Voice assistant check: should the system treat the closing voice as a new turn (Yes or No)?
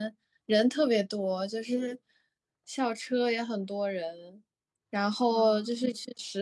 No